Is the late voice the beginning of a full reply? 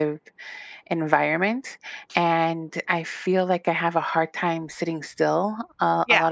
No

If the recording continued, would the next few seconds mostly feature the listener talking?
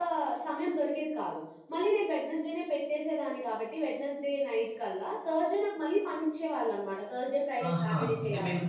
Yes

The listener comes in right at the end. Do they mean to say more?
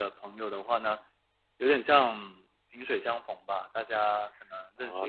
Yes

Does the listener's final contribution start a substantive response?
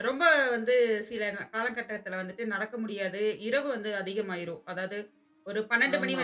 No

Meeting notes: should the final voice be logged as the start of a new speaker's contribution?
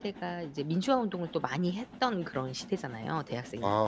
Yes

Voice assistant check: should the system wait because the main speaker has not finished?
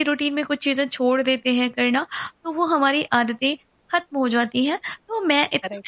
Yes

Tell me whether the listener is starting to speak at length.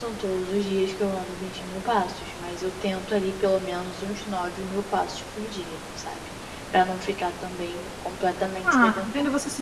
Yes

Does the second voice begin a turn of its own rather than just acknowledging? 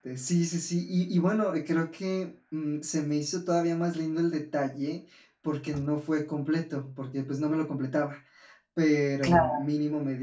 No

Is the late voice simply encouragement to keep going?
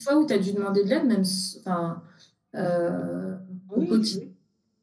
No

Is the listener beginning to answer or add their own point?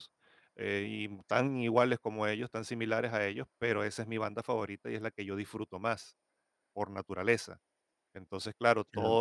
No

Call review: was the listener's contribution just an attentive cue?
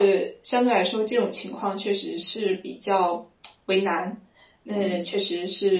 Yes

